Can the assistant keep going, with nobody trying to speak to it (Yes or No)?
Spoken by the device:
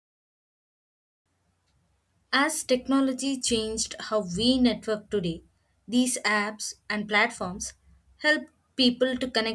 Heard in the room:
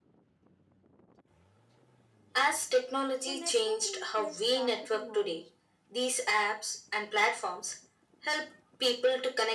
No